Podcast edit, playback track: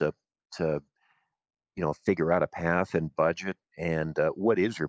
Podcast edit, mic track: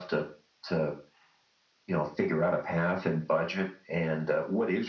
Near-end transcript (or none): none